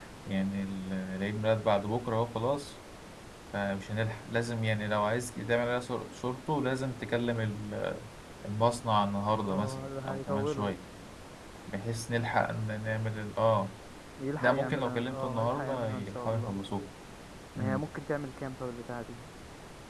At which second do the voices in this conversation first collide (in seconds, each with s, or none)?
9.5 s